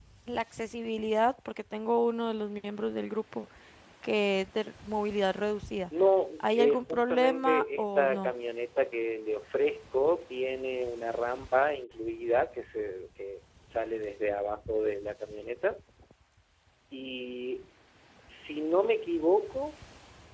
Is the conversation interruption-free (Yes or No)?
No